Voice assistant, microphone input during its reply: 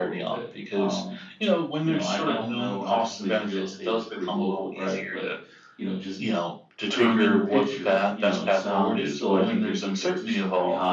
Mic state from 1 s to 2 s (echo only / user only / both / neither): both